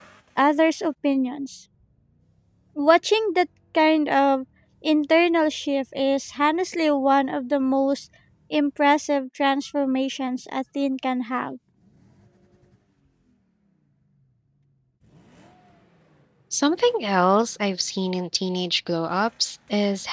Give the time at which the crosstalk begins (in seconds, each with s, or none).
none